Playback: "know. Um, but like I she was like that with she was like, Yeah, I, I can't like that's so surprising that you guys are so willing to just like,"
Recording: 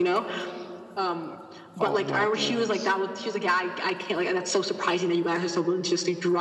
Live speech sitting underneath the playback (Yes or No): Yes